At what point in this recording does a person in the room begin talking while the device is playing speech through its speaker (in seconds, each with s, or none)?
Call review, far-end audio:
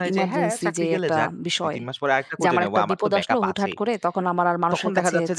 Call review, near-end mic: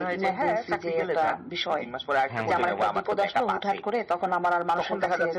2.3 s